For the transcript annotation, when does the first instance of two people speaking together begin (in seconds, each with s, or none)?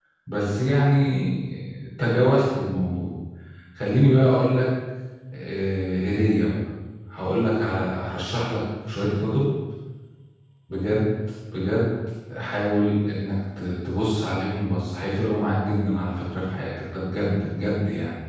none